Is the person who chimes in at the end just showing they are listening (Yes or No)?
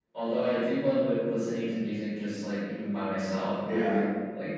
Yes